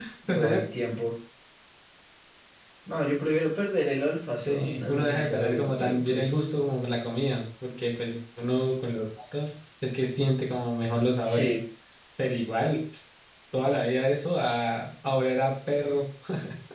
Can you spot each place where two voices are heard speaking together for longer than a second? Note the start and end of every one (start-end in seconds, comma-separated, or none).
4.3-6.5